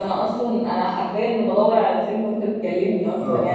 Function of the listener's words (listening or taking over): taking over